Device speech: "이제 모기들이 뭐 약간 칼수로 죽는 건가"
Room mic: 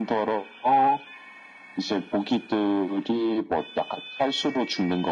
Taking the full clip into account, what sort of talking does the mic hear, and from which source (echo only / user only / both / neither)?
echo only